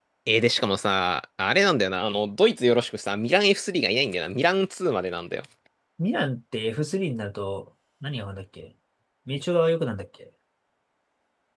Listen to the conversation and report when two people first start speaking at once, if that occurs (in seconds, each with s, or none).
none